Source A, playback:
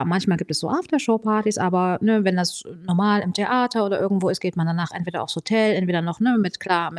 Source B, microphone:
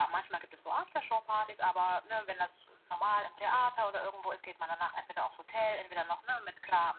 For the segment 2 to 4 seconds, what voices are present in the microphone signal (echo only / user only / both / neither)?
echo only